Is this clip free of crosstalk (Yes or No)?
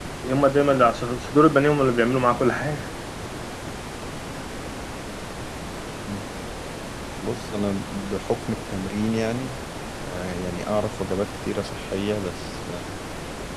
Yes